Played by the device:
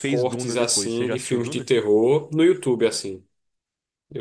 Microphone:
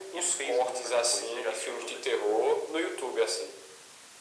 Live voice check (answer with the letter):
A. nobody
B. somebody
A